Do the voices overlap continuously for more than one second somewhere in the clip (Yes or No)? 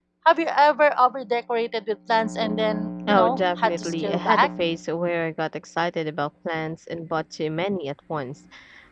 Yes